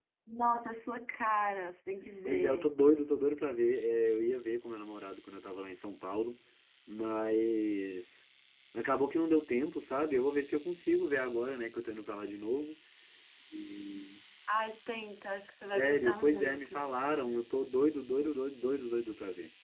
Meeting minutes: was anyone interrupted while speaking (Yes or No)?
Yes